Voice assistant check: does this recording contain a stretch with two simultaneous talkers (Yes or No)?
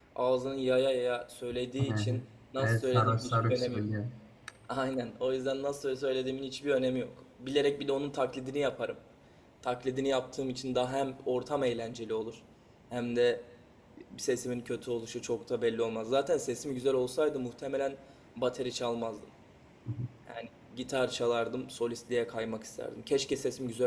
Yes